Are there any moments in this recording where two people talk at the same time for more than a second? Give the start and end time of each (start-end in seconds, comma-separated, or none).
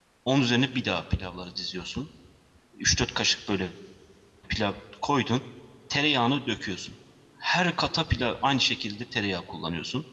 none